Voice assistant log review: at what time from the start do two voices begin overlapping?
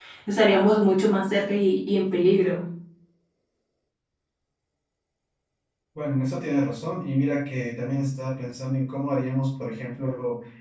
none

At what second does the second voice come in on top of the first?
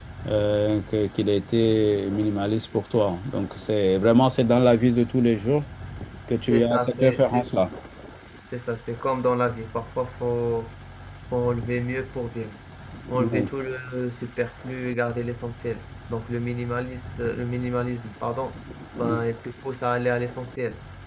6 s

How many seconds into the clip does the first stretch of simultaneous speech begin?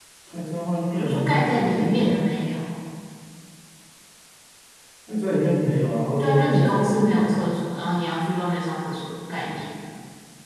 1 s

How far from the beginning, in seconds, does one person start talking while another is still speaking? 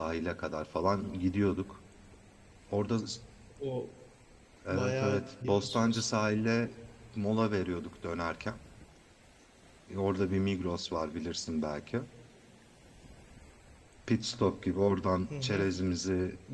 5 s

